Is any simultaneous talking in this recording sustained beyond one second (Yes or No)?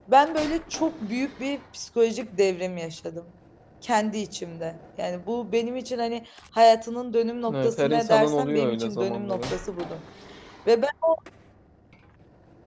Yes